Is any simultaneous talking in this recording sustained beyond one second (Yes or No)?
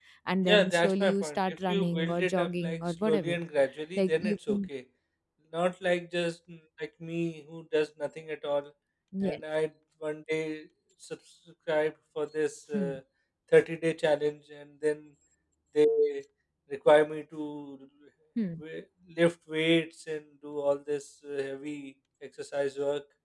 Yes